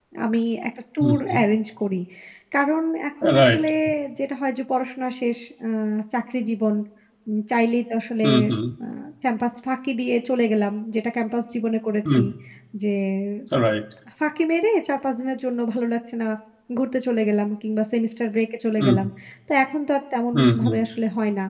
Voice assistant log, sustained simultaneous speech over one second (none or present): none